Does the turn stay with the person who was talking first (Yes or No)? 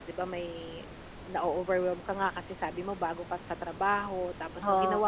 Yes